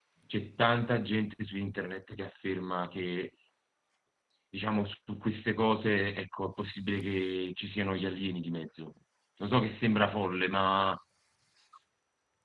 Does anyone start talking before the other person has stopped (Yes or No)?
No